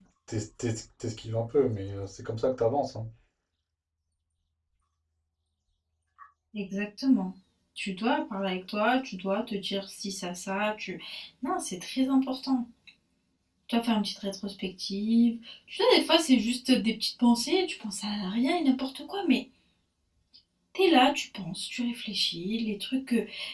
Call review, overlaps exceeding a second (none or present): none